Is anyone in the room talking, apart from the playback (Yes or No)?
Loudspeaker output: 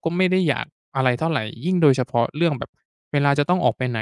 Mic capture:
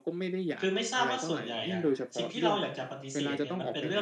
Yes